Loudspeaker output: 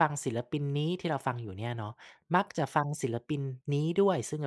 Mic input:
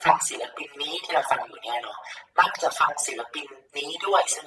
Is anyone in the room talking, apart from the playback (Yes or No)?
No